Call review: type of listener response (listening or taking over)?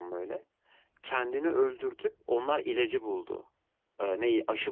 listening